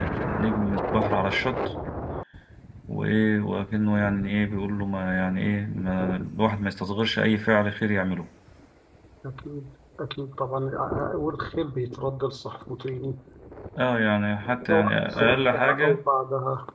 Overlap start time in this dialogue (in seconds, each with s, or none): 14.7 s